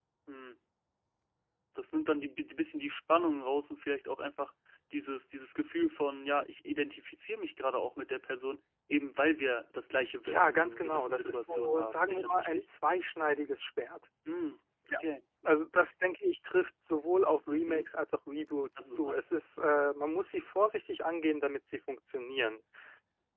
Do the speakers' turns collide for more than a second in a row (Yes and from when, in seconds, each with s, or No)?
Yes, from 10.3 s